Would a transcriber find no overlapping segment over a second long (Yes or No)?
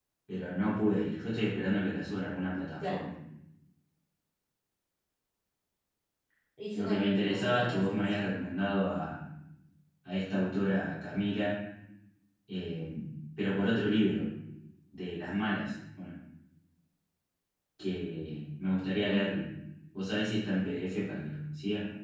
No